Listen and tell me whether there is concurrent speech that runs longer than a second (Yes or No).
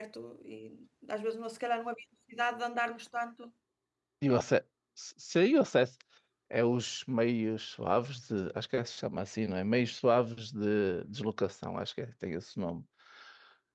No